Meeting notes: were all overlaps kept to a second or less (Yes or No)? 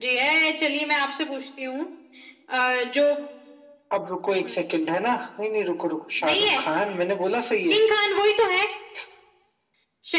Yes